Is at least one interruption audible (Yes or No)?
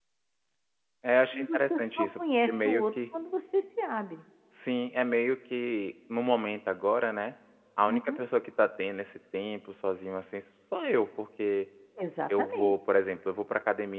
Yes